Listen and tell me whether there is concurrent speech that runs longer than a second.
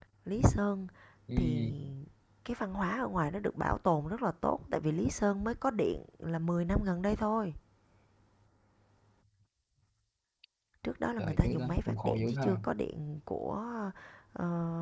Yes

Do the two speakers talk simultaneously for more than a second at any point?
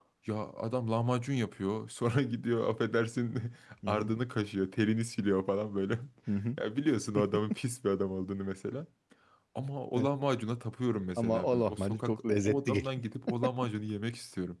Yes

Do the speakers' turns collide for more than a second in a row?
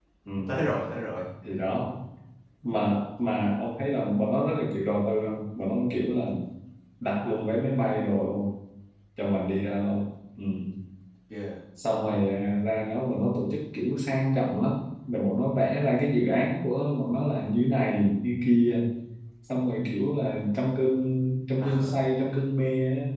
No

